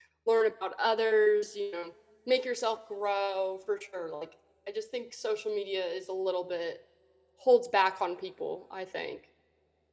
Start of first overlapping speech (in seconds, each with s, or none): none